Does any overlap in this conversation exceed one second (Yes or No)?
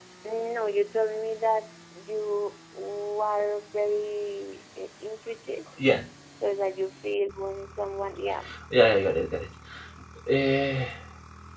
No